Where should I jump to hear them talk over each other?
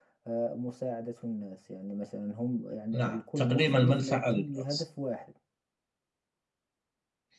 2.9 s

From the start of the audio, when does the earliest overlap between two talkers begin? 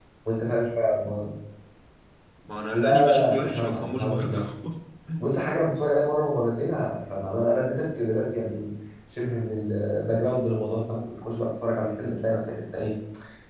2.7 s

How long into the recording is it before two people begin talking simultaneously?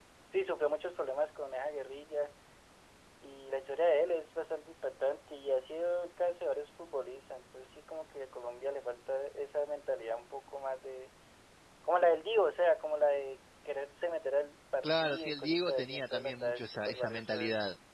14.8 s

